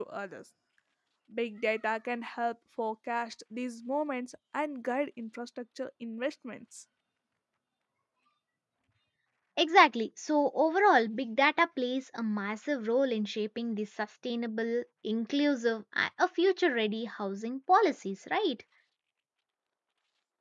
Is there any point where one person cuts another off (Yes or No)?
No